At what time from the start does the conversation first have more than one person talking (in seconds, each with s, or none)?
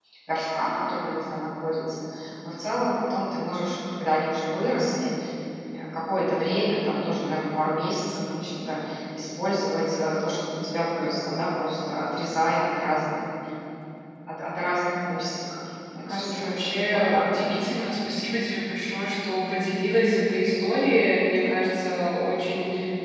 16.1 s